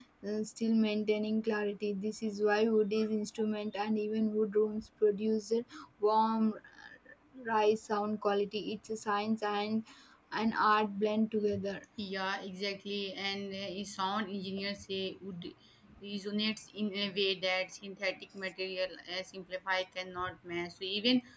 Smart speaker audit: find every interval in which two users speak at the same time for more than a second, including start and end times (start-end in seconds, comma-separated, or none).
none